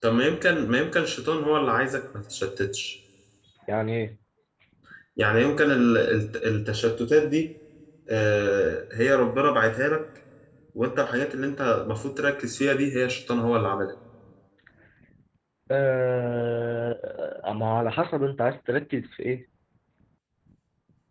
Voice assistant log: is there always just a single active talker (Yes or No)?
Yes